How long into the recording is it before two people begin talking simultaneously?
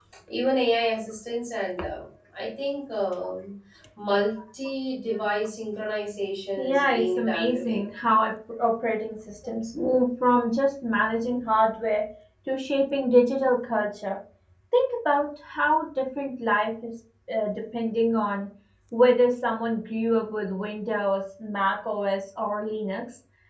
6.6 s

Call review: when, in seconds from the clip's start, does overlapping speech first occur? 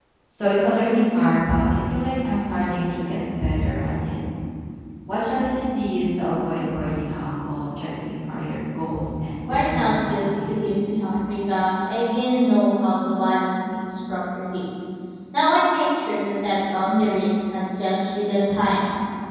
9.4 s

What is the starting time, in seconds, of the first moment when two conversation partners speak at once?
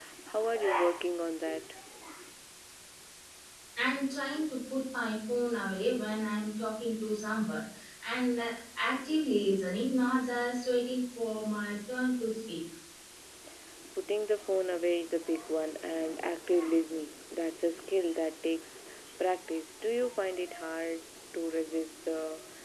none

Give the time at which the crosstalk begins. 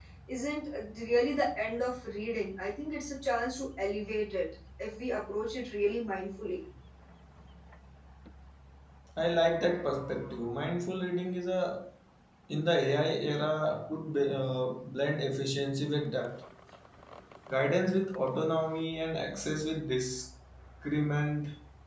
none

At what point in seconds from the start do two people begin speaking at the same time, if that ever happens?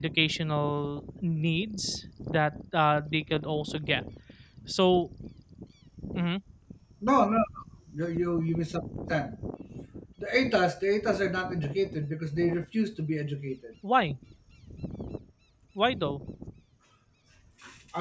none

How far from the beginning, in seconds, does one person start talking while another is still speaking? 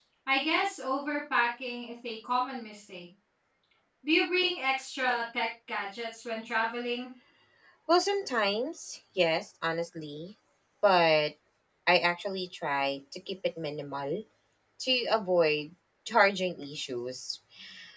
none

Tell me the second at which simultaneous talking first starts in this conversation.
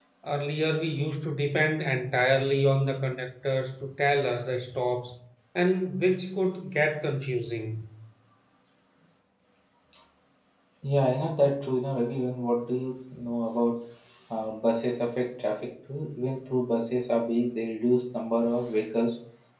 none

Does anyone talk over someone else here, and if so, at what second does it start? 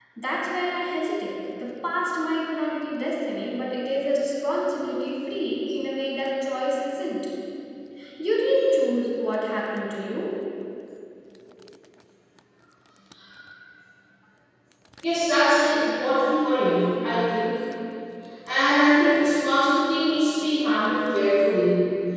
none

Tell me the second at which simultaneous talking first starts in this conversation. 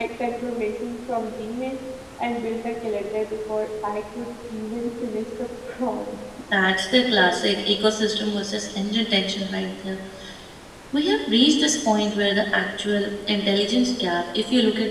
none

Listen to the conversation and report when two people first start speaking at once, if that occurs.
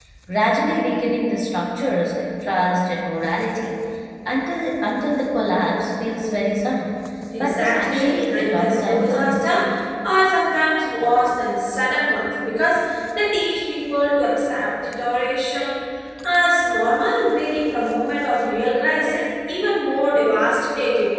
7.4 s

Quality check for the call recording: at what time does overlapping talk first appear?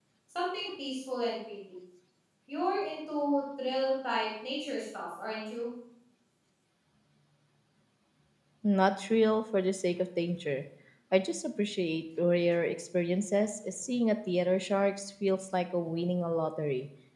none

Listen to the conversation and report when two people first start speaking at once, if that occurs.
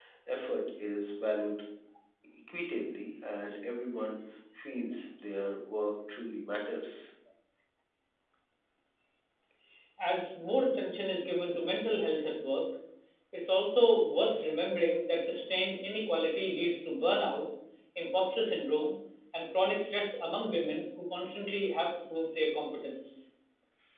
none

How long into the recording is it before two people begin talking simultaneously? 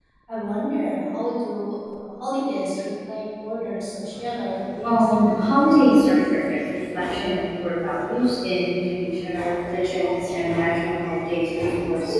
4.8 s

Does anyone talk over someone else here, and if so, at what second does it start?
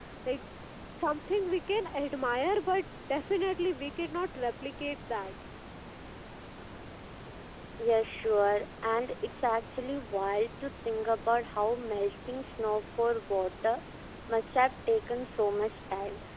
none

